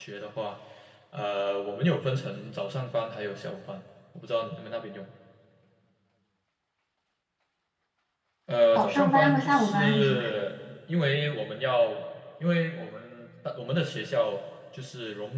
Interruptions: present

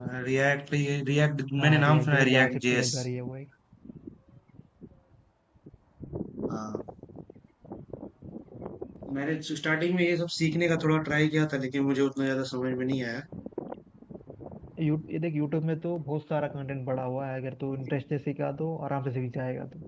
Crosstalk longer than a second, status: present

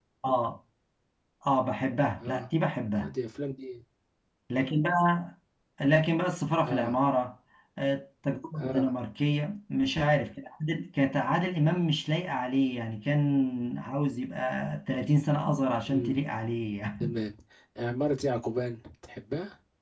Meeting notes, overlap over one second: none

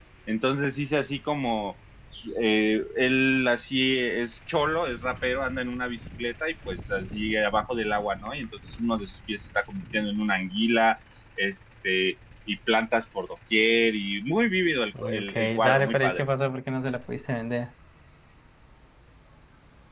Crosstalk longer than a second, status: present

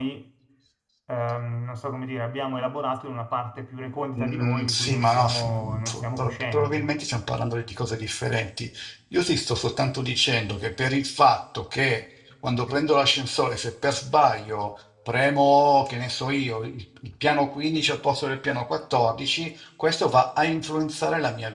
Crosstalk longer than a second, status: present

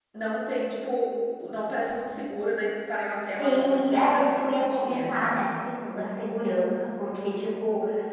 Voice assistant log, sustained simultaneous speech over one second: present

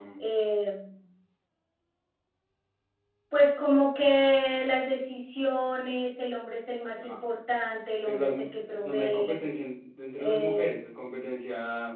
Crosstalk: present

